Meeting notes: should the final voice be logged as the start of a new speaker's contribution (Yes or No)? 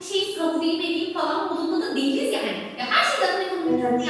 No